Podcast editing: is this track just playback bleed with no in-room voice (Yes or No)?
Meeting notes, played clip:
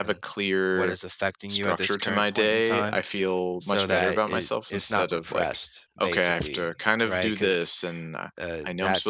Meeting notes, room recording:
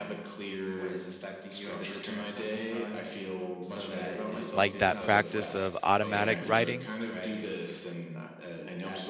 No